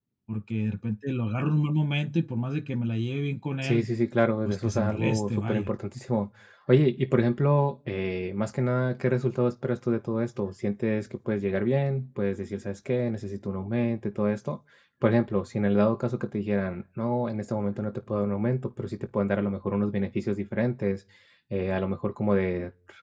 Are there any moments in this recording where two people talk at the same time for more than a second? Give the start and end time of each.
4.5-5.7

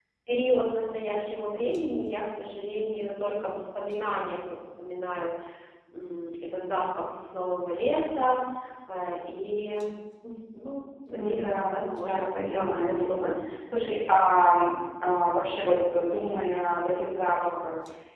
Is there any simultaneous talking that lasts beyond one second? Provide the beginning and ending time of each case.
11.2-13.4

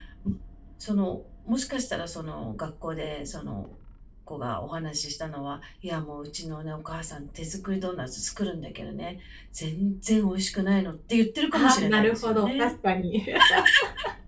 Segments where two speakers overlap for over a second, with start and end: 11.5-12.7

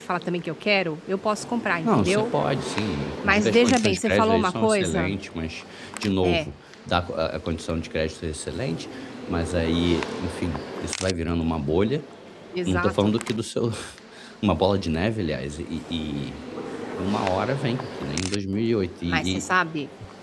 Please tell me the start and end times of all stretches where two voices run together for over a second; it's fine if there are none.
3.2-5.1

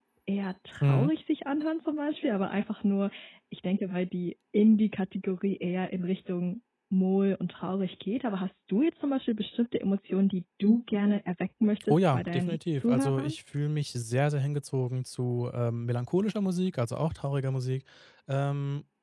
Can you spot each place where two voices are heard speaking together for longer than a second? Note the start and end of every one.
11.9-13.4

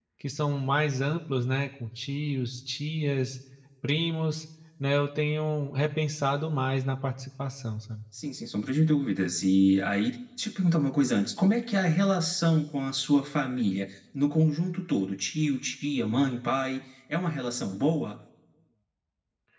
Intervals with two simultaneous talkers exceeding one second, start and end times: none

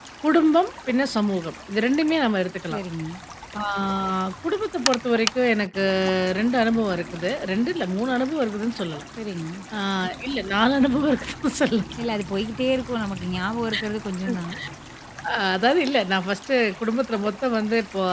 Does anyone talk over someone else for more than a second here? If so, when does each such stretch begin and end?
none

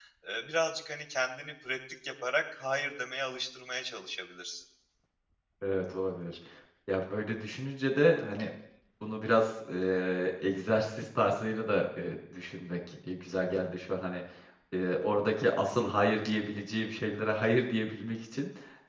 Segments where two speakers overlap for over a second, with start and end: none

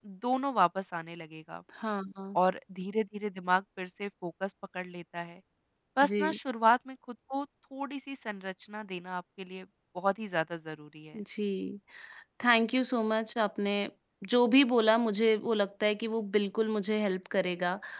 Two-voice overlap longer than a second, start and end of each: none

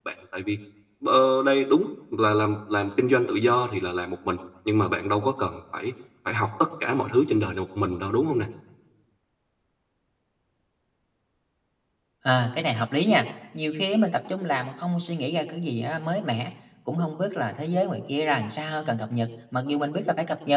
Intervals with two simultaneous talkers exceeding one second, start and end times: none

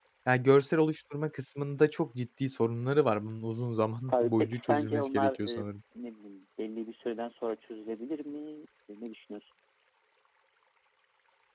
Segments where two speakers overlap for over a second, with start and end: 4.1-5.7

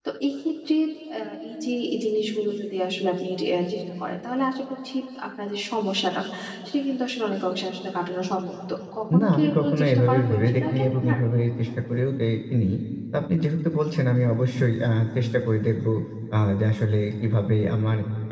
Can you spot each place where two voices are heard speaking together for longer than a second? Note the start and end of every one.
9.2-11.2

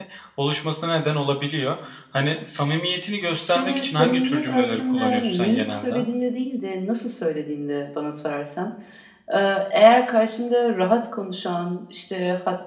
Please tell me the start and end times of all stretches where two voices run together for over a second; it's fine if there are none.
3.4-5.9

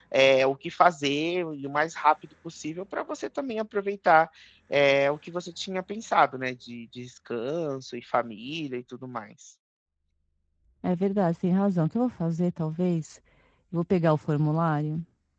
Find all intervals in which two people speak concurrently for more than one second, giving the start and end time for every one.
none

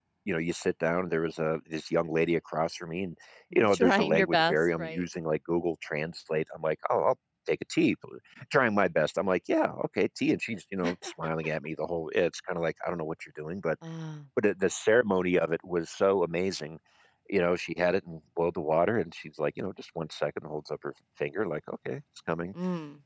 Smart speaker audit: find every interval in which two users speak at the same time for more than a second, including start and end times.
3.7-5.0

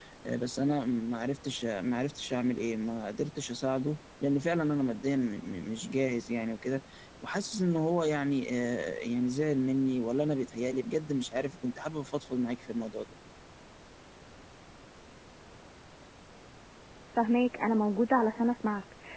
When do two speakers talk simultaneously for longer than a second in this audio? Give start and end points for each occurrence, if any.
none

